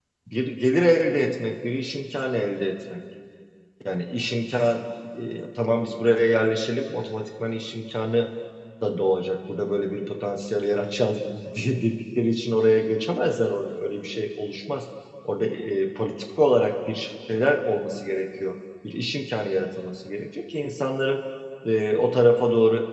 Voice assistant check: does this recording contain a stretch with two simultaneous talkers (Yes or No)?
No